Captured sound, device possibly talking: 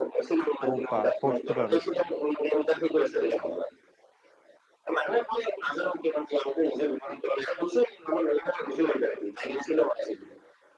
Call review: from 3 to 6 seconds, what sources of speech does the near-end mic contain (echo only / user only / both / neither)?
echo only